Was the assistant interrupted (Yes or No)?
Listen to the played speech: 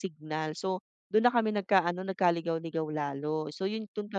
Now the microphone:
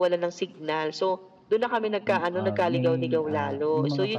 Yes